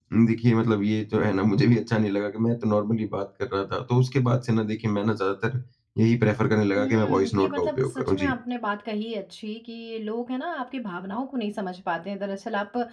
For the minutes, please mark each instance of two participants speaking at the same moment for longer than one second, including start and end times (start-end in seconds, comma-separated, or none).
6.8-8.3